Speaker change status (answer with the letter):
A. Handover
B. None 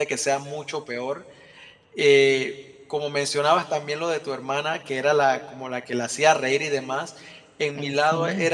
B